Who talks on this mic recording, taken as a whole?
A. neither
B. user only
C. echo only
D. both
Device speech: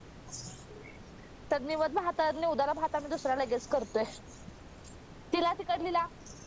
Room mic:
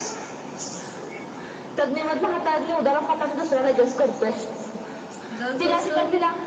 D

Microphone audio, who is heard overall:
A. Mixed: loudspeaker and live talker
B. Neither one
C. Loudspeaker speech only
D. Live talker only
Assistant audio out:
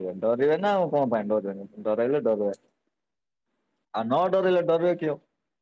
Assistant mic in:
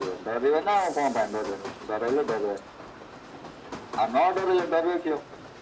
C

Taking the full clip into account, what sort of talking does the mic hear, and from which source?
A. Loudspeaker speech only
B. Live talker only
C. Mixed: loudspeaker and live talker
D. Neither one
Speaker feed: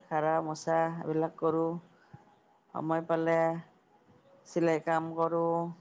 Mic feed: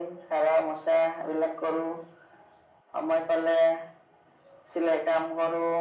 A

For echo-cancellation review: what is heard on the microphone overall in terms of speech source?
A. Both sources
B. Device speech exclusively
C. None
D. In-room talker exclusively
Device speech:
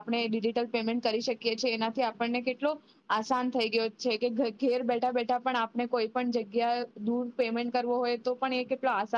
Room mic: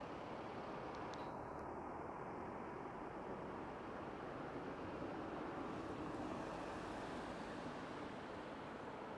C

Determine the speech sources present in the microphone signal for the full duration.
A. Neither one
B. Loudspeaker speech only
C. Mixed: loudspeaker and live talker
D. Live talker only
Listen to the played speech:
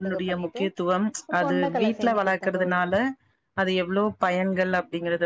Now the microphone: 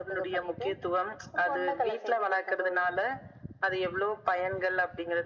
B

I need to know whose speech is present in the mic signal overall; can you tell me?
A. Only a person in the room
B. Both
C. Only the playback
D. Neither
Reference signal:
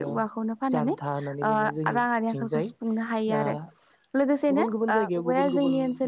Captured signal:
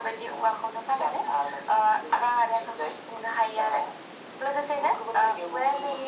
C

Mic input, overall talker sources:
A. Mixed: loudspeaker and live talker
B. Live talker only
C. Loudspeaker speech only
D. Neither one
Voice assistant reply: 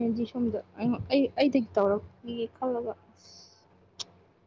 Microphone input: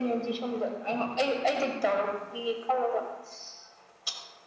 C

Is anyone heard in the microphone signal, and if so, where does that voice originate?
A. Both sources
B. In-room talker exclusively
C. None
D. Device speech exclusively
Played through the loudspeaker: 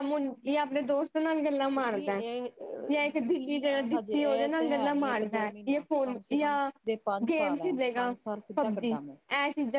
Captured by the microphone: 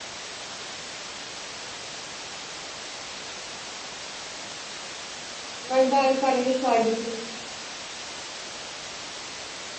B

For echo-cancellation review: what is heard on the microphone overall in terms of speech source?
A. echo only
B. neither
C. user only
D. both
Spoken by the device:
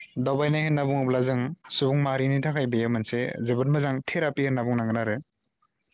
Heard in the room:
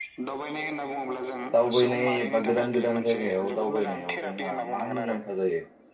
D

